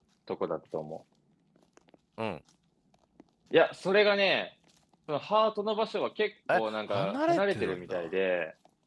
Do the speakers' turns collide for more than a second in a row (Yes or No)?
Yes